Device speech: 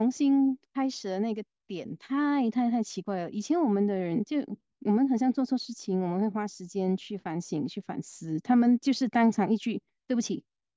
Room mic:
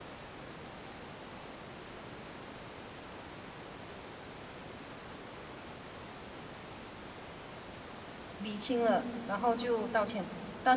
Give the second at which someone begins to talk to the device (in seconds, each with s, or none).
8.4 s